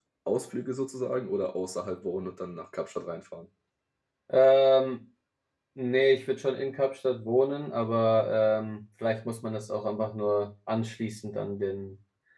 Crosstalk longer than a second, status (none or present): none